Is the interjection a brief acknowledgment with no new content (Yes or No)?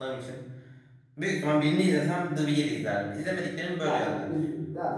No